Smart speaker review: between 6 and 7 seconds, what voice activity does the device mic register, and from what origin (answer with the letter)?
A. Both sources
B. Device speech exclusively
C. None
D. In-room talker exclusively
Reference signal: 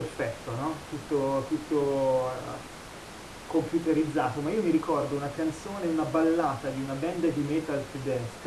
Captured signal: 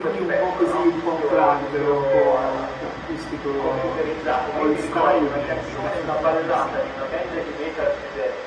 A